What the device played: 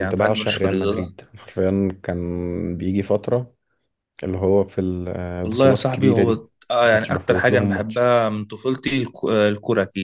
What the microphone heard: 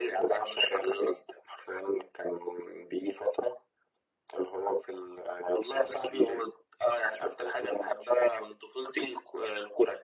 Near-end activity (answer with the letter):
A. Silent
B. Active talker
A